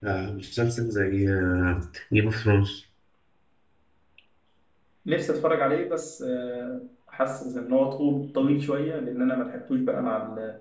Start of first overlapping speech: none

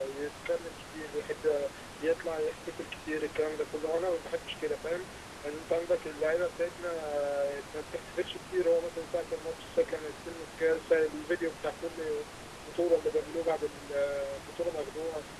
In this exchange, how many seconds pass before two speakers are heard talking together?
none

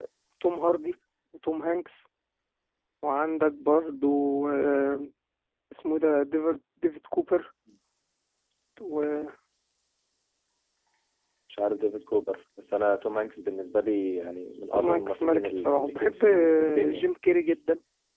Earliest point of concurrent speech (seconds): 15 s

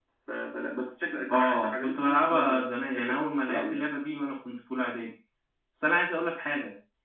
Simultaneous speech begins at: 1 s

